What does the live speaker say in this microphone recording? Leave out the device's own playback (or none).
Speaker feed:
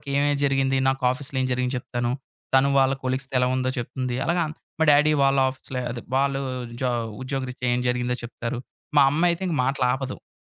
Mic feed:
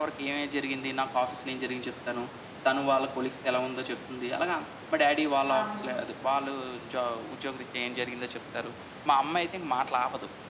అవును.